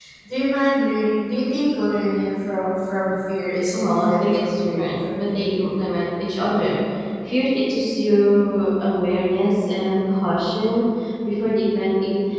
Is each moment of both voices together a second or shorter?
No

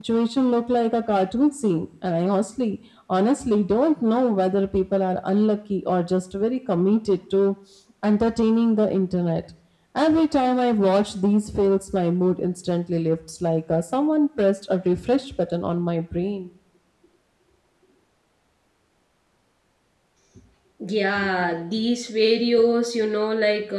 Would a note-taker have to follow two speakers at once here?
No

